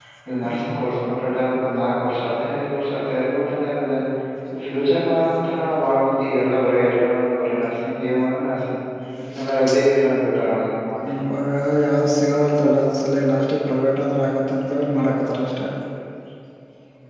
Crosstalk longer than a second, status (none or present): none